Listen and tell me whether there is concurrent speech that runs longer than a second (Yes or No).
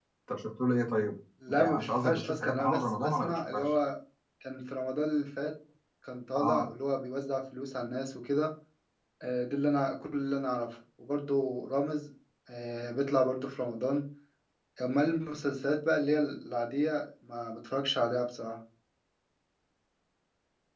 Yes